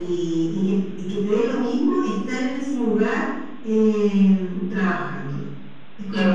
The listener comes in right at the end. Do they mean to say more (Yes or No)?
Yes